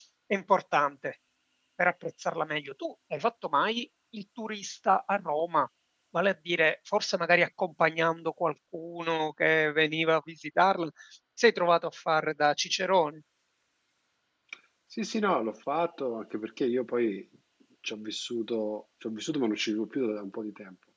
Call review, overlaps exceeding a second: none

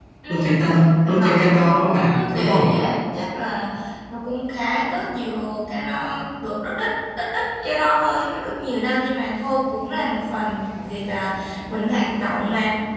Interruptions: present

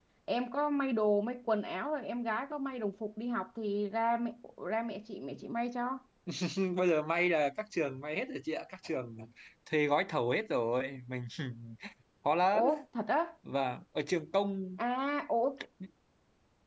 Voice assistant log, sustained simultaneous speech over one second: none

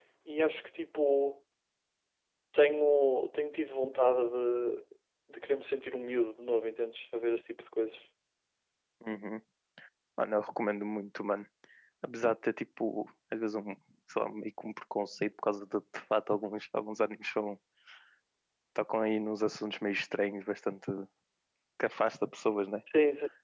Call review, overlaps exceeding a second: none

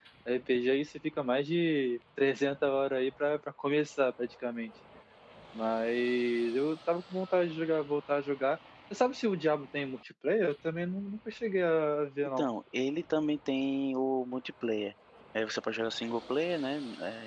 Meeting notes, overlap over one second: none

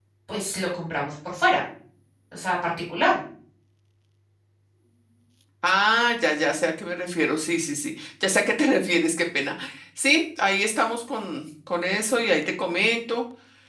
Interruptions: none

